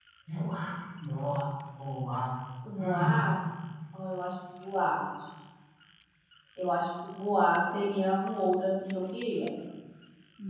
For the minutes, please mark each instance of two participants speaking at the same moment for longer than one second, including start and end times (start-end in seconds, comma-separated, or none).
none